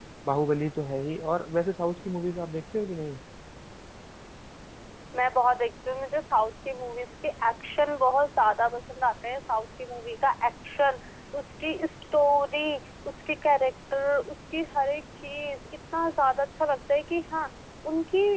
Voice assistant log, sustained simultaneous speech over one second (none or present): none